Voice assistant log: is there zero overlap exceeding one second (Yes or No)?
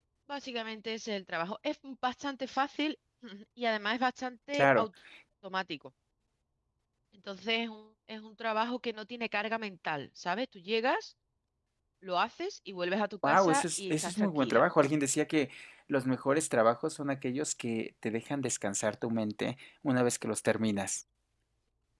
No